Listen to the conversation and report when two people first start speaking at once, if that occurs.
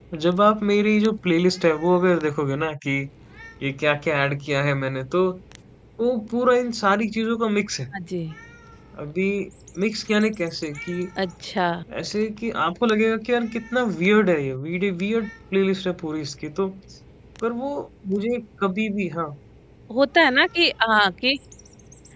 none

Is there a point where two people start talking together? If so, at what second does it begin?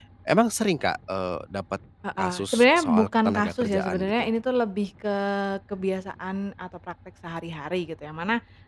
2 s

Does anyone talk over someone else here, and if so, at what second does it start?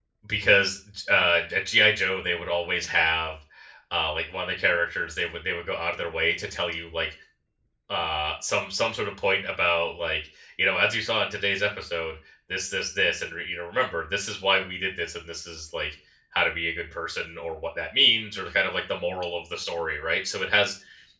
none

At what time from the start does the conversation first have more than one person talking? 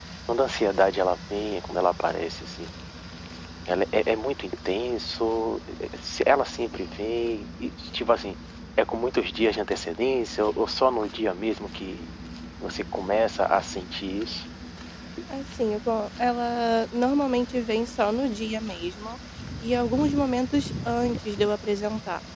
none

